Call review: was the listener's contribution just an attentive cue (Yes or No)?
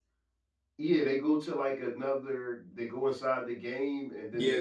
No